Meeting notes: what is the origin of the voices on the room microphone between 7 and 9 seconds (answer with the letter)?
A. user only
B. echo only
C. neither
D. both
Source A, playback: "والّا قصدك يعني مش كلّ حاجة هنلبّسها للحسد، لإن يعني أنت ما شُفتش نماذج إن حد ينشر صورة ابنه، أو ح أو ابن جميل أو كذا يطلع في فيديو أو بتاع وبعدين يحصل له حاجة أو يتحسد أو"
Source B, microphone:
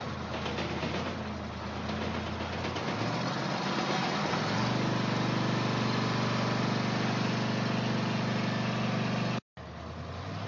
C